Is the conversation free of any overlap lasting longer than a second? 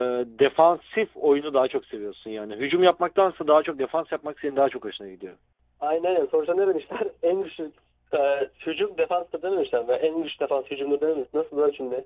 Yes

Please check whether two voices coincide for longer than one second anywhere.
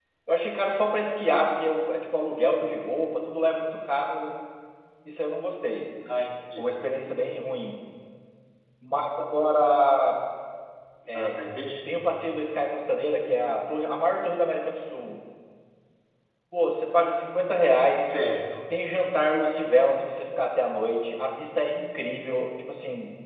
No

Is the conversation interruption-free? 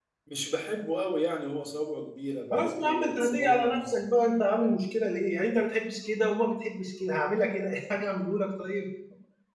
No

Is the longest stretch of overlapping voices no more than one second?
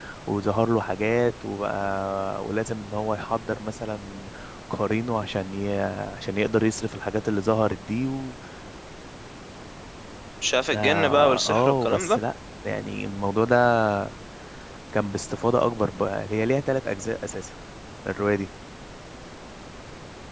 No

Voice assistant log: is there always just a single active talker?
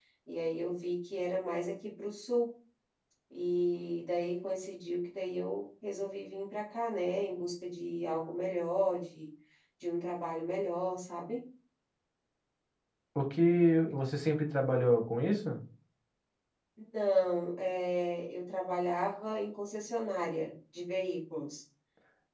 Yes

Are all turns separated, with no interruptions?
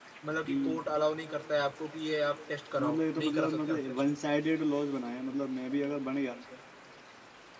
No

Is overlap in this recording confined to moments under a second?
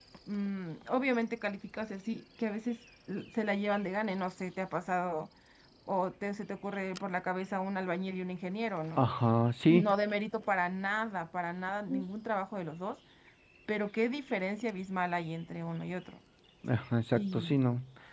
Yes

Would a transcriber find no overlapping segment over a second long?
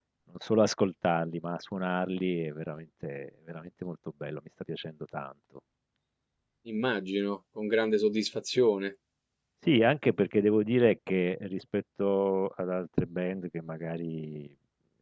Yes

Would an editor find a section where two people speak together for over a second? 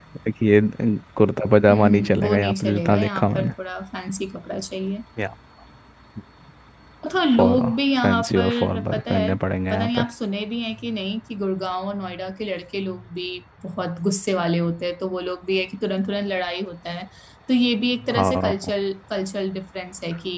Yes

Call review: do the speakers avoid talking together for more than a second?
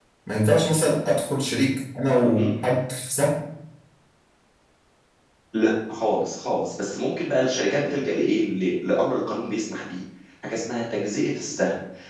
Yes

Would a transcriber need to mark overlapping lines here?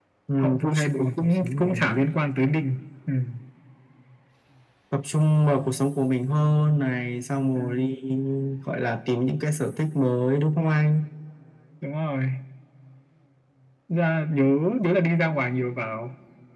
Yes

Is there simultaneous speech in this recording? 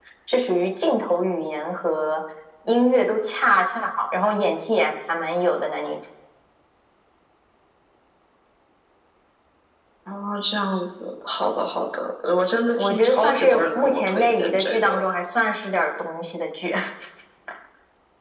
Yes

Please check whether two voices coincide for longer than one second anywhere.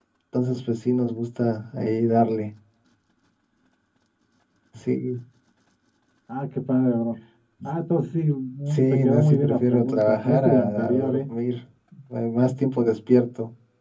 Yes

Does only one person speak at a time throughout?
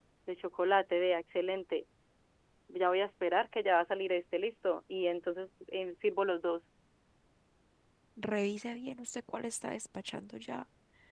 Yes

